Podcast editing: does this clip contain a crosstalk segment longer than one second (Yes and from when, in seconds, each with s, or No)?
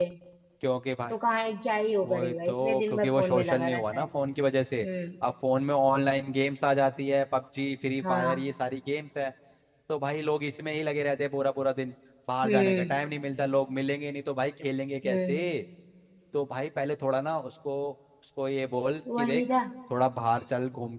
Yes, from 2.1 s